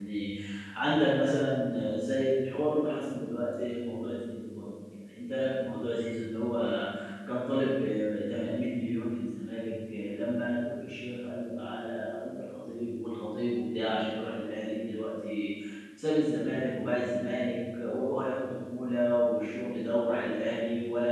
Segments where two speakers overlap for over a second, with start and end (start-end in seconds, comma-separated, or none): none